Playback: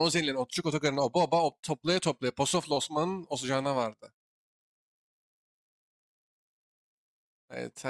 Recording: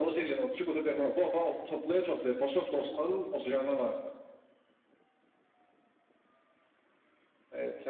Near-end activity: none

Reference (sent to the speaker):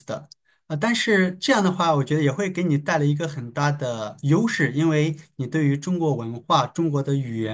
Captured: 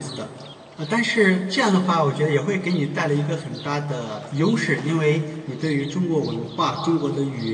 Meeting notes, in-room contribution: none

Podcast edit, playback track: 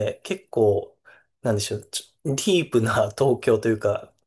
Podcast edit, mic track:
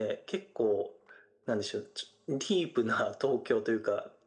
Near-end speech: none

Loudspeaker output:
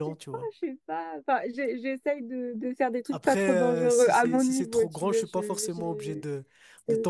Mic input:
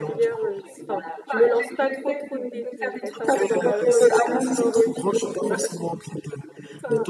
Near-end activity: present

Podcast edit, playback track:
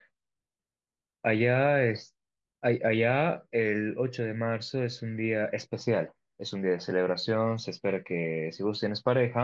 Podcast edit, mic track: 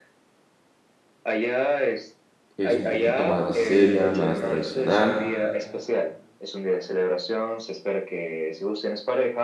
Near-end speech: present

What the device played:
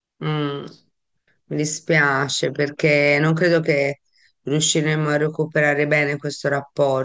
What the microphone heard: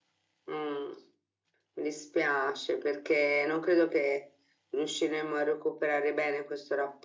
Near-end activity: none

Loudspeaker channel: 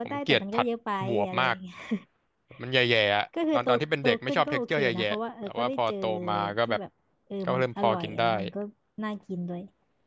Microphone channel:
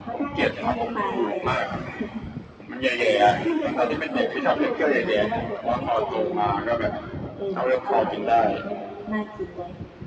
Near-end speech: none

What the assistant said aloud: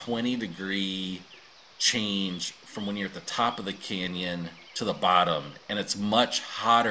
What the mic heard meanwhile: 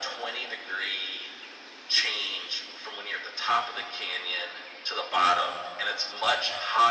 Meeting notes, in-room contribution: none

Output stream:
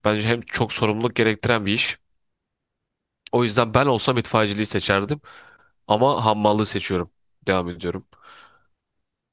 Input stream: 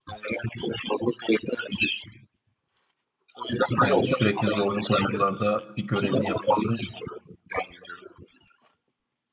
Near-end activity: present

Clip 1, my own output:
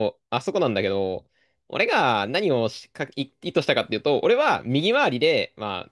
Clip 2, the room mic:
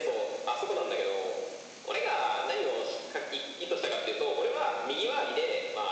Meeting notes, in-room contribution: none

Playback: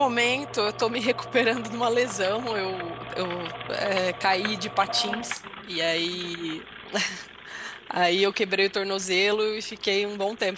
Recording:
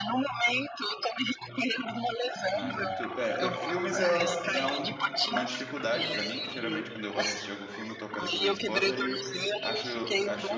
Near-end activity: present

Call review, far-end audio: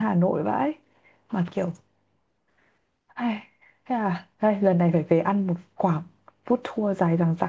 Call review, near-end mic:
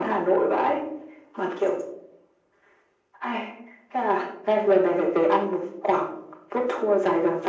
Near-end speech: none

